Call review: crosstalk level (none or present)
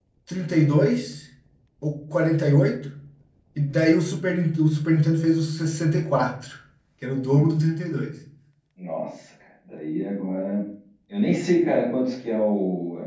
none